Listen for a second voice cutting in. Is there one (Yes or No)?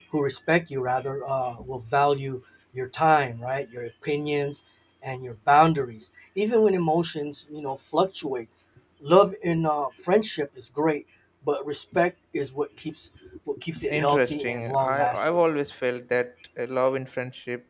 Yes